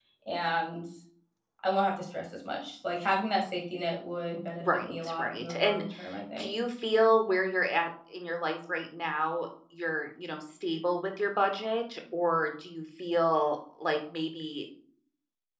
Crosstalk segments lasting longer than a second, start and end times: 4.6-5.8

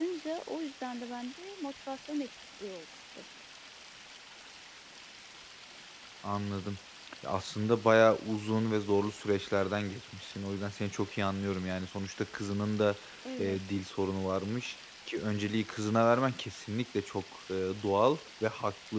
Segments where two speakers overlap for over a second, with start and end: none

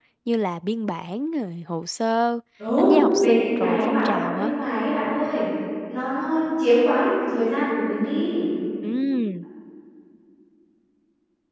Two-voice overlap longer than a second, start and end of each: 2.8-4.5

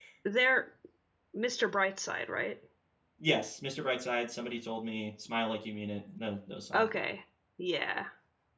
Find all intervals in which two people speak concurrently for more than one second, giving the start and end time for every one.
none

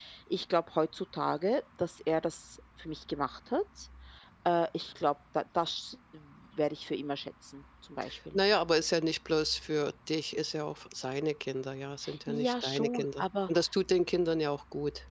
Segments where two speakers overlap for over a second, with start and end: 12.3-13.5

